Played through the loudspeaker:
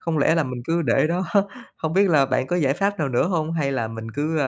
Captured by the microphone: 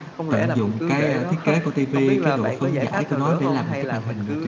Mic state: both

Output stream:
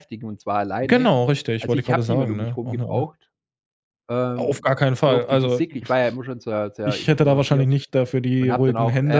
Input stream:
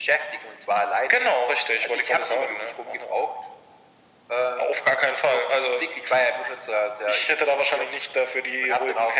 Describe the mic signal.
echo only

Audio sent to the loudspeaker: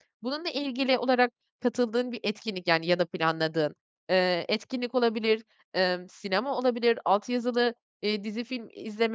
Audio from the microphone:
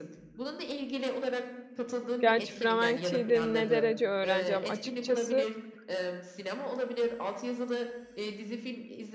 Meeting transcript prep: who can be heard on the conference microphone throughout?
both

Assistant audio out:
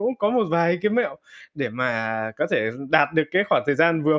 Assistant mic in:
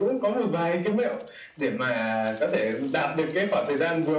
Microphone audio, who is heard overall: echo only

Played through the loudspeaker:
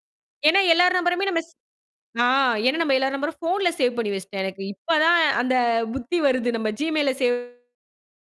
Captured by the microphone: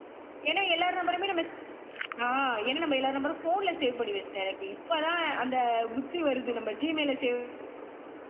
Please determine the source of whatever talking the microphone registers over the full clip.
echo only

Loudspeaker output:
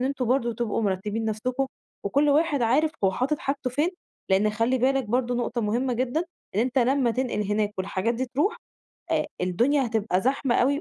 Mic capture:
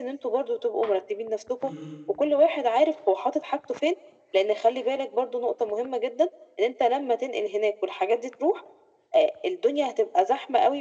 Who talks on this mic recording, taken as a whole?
both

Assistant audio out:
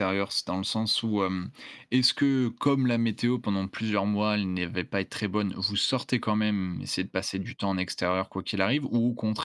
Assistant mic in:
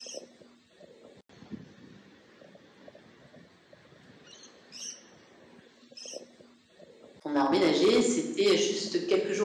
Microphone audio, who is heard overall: user only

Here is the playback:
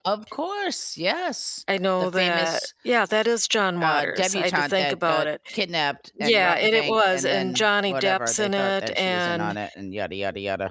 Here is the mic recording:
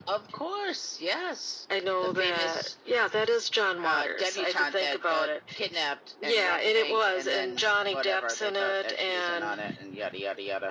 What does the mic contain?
echo only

